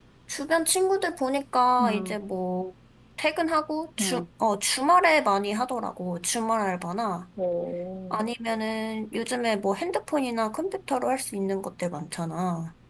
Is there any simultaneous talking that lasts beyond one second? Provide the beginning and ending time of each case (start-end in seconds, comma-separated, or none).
none